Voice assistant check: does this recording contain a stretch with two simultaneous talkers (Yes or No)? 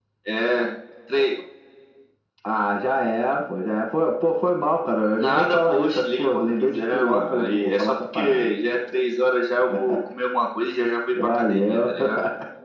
Yes